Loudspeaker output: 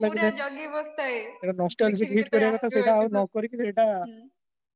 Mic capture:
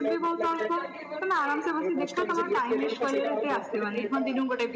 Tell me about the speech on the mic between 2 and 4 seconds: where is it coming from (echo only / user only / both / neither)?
both